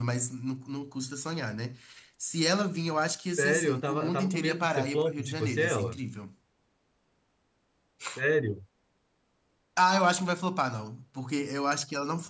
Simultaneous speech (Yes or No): Yes